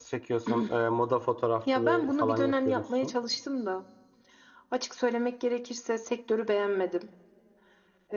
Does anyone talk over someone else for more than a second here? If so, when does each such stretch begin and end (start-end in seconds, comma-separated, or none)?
1.7-3.1